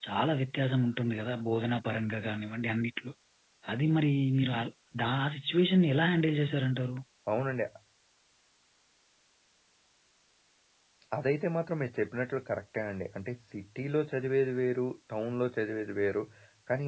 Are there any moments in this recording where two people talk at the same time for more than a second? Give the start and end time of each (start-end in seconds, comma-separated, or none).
none